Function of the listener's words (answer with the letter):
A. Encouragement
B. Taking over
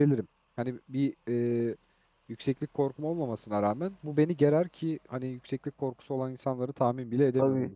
B